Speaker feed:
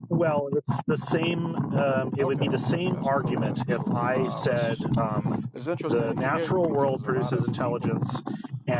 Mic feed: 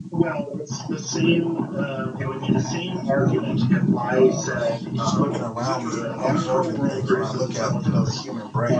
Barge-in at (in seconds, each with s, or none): 5.0 s